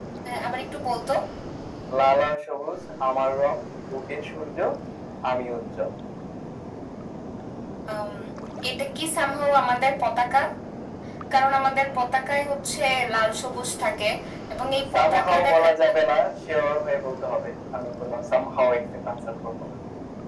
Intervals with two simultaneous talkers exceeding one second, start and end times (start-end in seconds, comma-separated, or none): 14.9-16.2